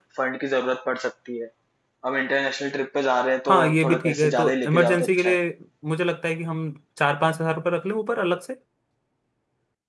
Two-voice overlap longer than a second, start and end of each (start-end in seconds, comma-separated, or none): 3.5-5.4